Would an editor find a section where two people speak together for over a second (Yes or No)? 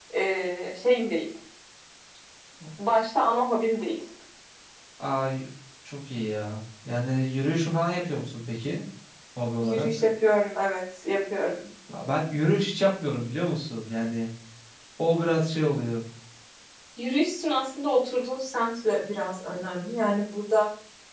No